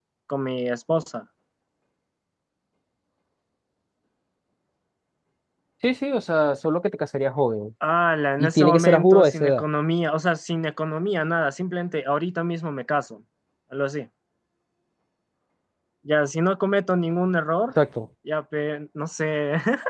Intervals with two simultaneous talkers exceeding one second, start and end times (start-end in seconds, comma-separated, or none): 8.4-9.6